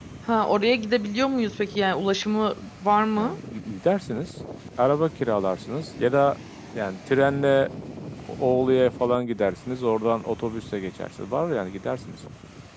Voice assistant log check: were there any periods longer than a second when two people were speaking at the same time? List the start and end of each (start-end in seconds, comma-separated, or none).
none